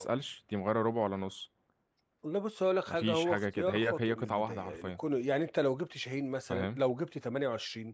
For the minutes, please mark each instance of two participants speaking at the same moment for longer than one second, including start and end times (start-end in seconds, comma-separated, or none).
2.9-5.0